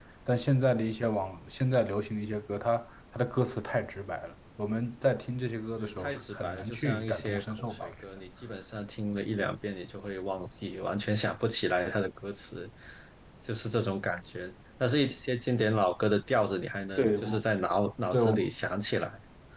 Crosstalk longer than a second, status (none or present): present